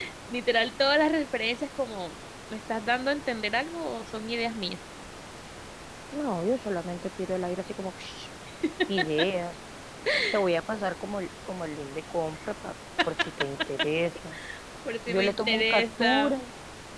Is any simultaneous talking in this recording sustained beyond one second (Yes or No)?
Yes